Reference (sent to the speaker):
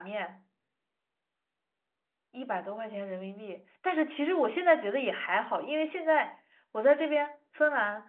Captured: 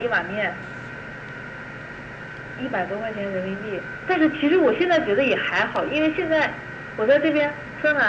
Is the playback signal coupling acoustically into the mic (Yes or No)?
Yes